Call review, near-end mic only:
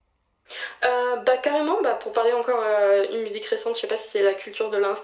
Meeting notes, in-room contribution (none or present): none